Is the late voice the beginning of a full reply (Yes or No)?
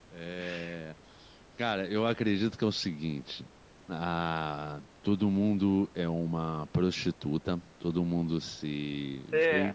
No